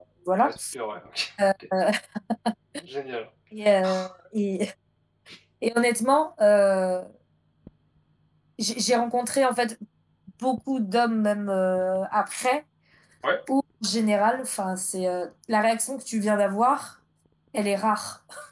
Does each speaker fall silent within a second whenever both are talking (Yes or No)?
Yes